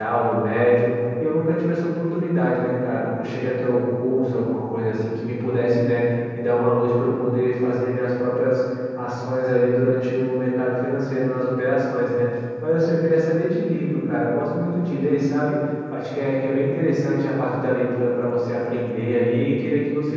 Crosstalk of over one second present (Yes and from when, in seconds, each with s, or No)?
No